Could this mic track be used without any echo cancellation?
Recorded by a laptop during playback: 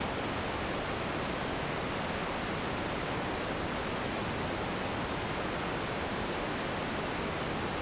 Yes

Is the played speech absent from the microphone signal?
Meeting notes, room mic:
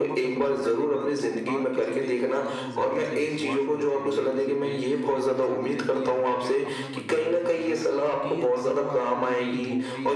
No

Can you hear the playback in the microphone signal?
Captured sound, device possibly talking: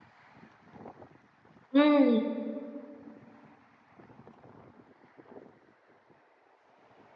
No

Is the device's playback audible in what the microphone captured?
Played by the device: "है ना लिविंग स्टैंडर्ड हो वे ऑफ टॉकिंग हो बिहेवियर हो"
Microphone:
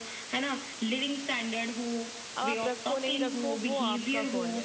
Yes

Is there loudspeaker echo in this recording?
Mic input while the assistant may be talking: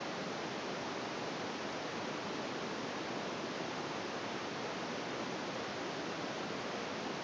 No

